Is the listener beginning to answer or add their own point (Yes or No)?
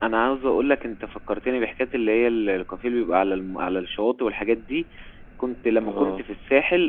No